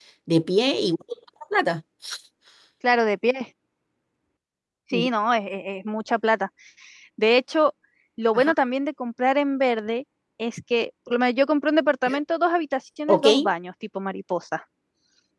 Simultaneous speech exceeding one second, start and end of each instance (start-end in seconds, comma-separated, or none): none